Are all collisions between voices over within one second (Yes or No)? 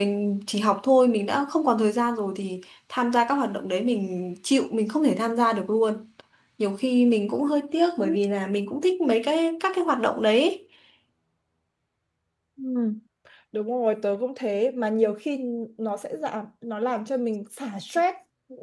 Yes